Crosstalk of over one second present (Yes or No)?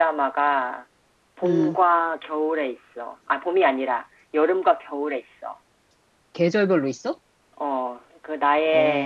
No